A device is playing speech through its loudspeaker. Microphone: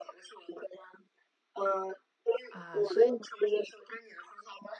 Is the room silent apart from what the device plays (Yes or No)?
No